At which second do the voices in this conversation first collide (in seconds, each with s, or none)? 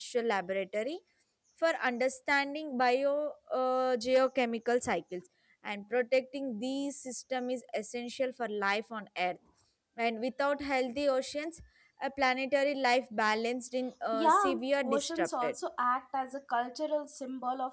14.1 s